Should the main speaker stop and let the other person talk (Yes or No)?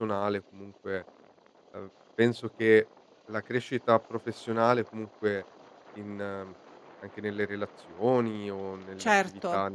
No